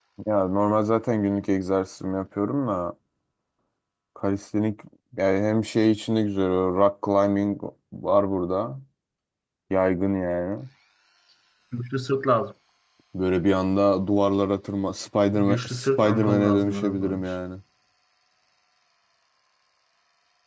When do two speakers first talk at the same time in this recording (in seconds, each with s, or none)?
15.3 s